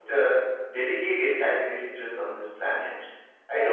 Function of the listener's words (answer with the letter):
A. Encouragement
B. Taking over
A